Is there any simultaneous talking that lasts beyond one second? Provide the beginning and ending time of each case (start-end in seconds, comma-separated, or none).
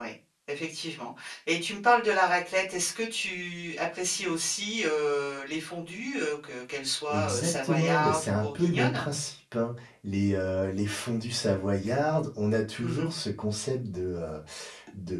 7.1-9.0